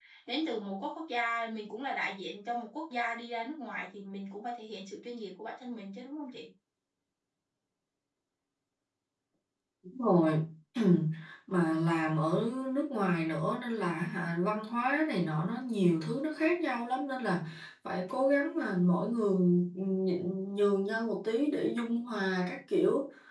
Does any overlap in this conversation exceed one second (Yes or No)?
No